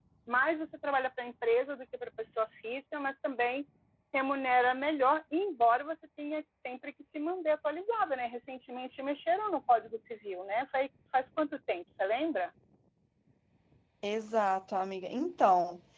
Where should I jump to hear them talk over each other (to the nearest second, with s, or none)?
none